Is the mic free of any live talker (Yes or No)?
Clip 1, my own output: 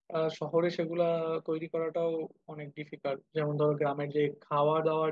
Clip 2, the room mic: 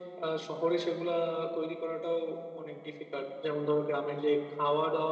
Yes